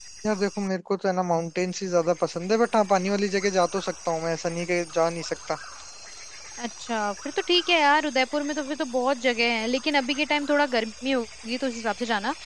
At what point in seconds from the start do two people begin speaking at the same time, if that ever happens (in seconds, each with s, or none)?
none